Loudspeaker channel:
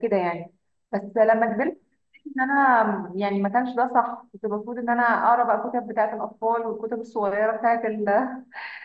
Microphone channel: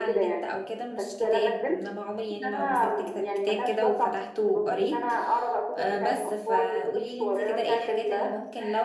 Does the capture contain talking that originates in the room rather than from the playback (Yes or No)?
Yes